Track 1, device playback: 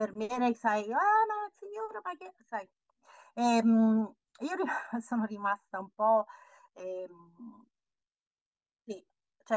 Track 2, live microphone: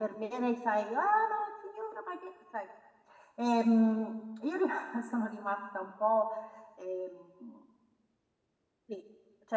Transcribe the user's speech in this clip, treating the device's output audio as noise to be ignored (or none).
none